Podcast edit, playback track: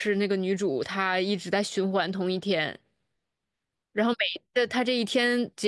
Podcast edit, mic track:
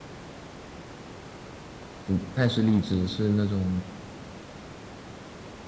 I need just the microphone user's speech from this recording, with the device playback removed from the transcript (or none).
不不太是励志，是那种